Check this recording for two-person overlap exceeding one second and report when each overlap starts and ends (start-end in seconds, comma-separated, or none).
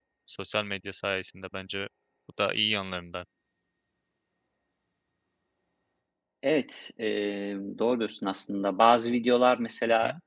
none